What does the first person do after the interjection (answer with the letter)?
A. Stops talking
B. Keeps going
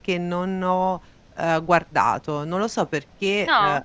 B